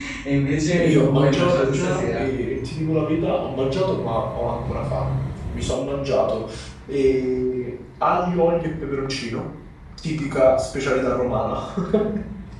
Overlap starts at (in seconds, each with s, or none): 0.8 s